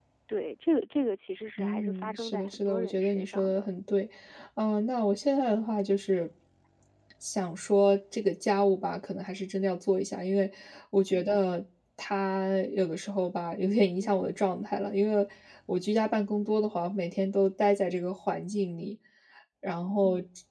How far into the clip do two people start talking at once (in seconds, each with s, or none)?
1.6 s